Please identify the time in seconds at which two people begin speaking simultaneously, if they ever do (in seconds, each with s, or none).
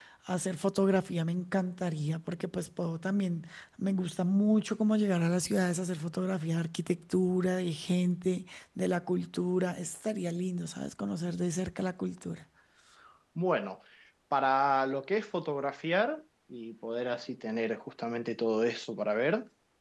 none